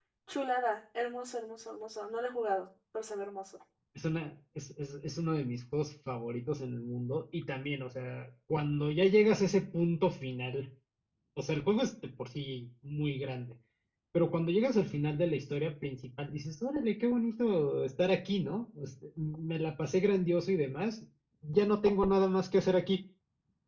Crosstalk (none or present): none